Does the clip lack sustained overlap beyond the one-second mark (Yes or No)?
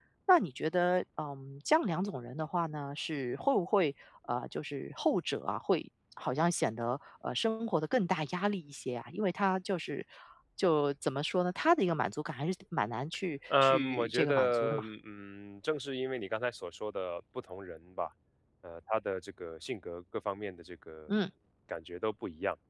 No